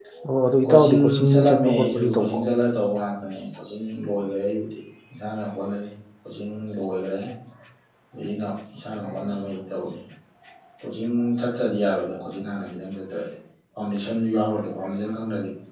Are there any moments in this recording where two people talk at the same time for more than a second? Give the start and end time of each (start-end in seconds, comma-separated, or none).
0.6-2.4